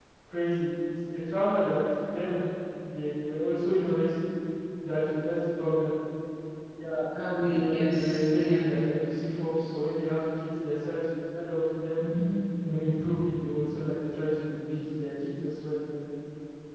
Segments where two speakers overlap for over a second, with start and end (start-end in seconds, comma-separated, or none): 7.4-8.7